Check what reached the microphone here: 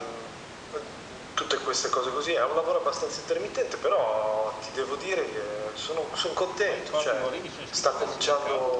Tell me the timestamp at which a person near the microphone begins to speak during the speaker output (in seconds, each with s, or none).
6.6 s